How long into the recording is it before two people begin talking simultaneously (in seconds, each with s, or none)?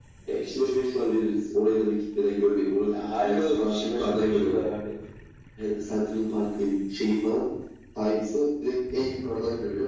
2.9 s